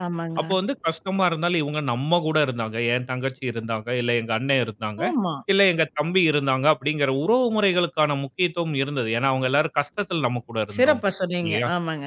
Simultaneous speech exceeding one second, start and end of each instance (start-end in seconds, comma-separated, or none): none